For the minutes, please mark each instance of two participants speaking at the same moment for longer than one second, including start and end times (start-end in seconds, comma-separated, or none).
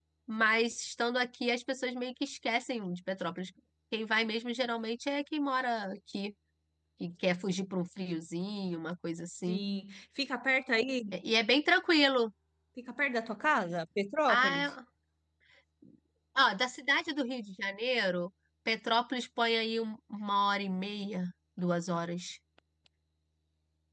none